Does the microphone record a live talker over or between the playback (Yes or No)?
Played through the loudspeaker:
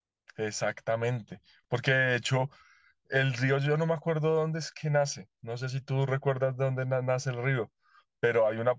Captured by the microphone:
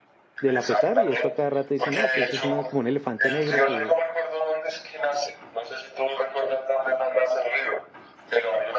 Yes